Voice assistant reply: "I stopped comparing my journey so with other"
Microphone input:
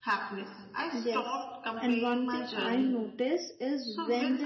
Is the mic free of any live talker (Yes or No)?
No